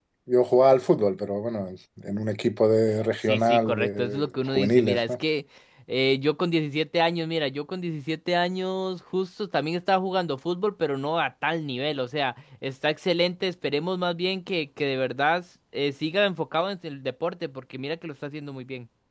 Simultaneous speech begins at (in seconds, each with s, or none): 3.2 s